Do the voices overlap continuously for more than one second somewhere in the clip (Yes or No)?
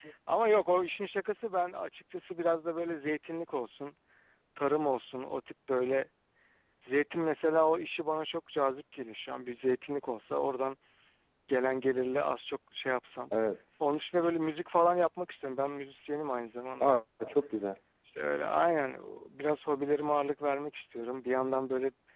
No